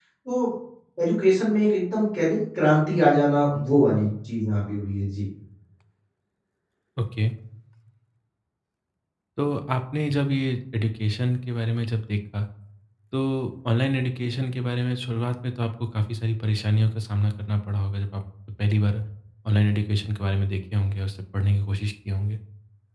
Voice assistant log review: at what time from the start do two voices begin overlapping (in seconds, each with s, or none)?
none